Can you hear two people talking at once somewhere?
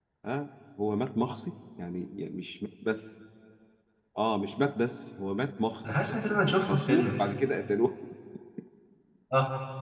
Yes, from 5.8 s

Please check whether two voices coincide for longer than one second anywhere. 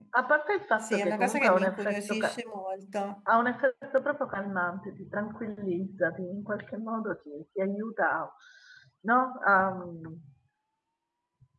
Yes, from 0.8 s

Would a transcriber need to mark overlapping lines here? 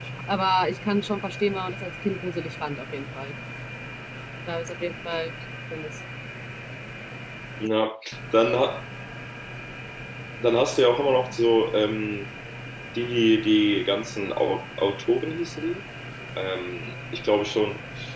No

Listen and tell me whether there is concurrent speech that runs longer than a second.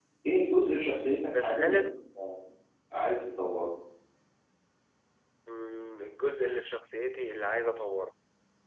No

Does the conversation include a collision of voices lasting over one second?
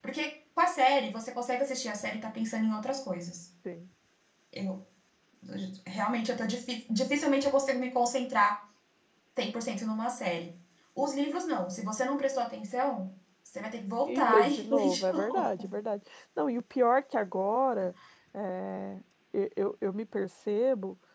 Yes, from 14.1 s

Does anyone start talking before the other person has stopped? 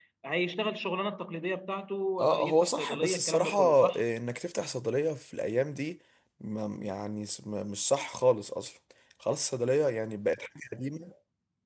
Yes, from 2.2 s

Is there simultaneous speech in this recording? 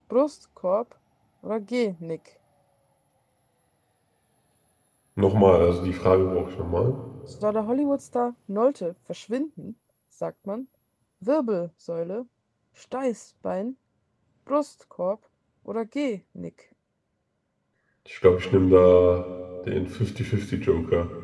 No

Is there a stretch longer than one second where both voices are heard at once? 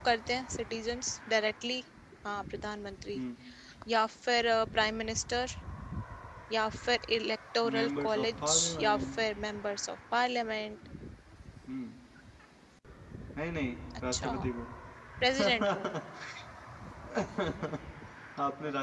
Yes, from 7.7 s

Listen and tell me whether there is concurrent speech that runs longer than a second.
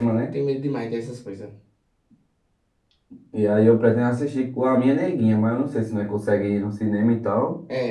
No

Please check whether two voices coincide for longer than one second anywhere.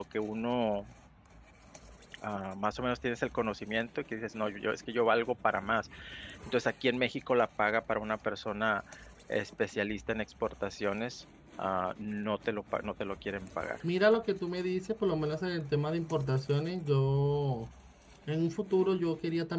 No

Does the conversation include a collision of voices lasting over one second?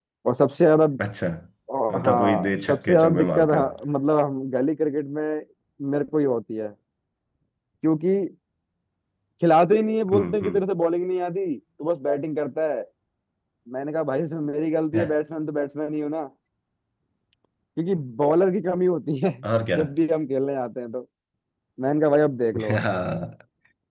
Yes, from 1.9 s

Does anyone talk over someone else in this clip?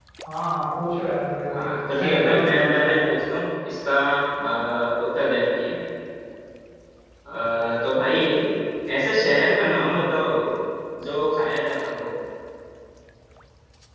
Yes, from 1.5 s

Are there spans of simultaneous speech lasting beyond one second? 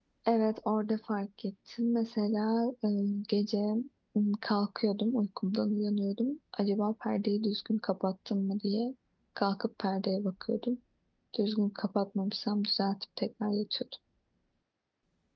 No

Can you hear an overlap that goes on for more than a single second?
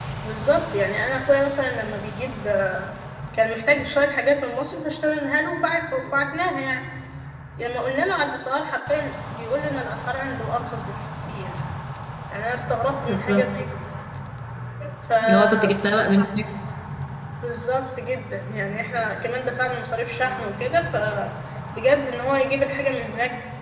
No

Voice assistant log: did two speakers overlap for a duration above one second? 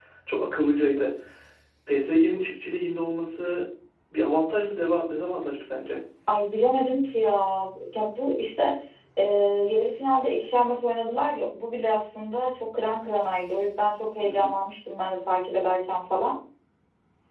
No

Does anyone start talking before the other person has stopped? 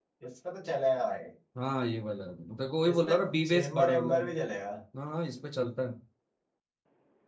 Yes, from 2.9 s

